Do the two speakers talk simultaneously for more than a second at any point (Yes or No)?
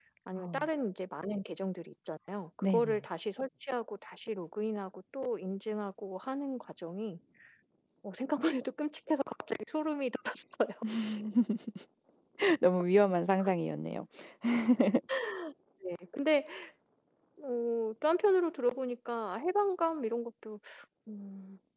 No